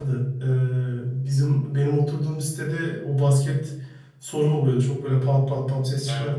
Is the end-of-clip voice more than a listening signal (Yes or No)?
No